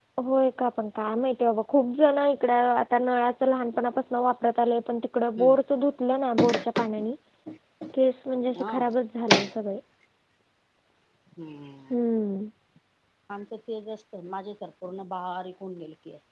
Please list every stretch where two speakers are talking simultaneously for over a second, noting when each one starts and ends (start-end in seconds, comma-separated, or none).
none